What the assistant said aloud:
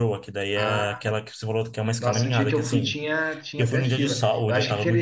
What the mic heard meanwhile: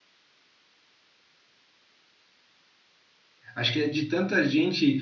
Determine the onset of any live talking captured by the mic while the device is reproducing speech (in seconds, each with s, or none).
3.5 s